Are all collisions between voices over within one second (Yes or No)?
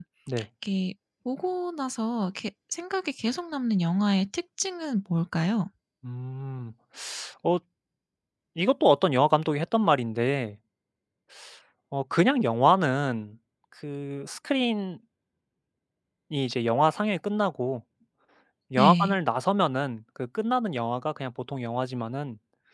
Yes